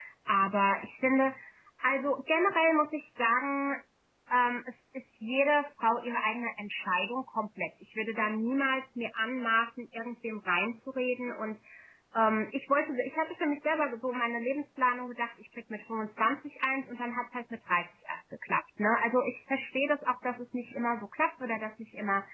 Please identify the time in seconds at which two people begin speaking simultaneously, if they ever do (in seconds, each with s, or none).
none